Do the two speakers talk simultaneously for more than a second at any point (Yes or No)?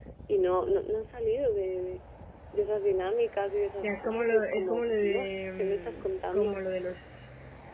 Yes